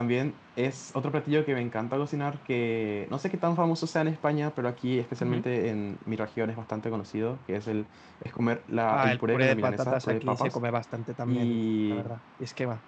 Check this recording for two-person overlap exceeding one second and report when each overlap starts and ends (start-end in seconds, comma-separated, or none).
8.9-10.6